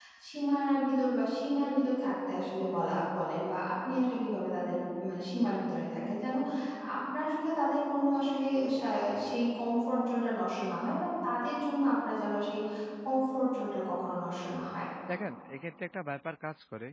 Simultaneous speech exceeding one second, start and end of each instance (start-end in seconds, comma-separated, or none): none